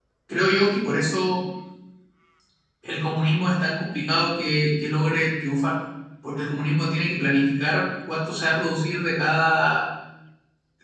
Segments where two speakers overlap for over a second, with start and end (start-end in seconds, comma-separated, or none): none